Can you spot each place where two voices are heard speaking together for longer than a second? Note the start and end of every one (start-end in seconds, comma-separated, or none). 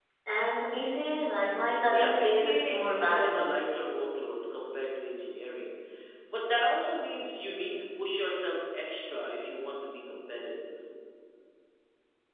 1.9-3.5